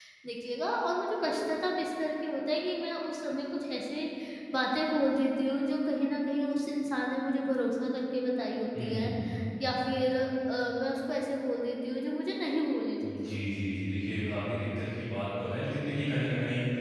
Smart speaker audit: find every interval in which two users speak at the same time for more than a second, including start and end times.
none

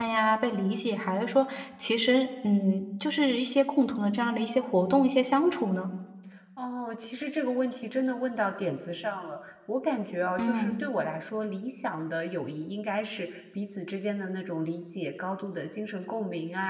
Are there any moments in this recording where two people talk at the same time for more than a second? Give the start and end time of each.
none

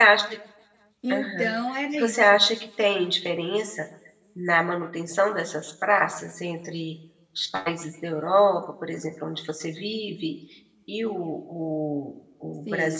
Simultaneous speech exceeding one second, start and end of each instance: none

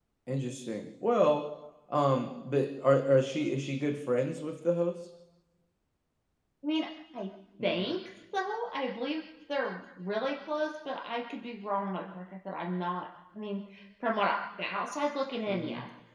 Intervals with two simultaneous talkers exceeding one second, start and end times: none

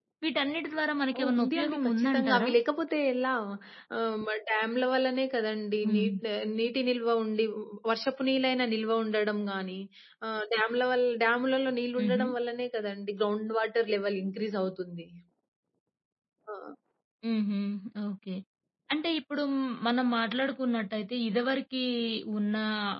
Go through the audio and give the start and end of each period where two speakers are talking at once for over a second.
1.2-2.5

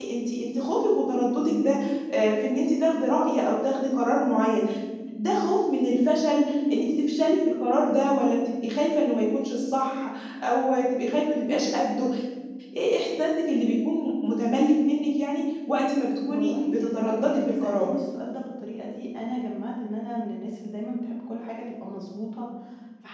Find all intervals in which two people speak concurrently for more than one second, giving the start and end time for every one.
16.3-17.9

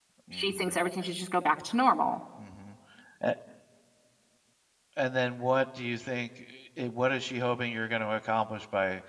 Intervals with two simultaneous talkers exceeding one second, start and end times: none

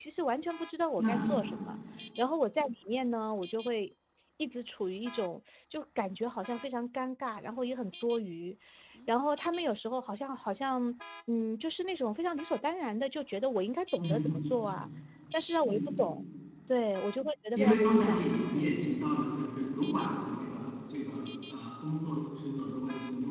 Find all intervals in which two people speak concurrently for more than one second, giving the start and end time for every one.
17.6-18.8

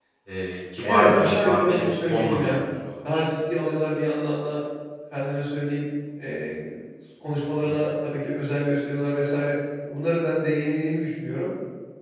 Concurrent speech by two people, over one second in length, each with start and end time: 0.8-2.5

